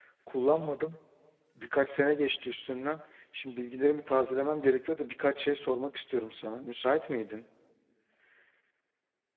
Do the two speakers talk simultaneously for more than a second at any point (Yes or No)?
No